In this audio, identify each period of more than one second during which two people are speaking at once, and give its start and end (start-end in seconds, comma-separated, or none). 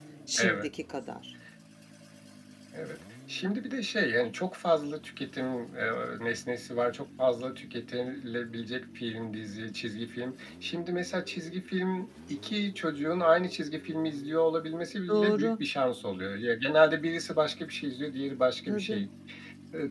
none